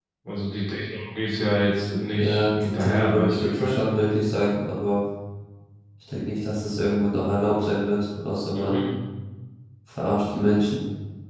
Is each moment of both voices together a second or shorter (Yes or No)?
No